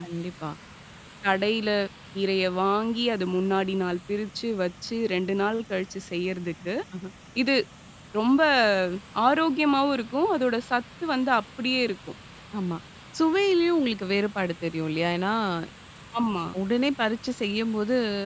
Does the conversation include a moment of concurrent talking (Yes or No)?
No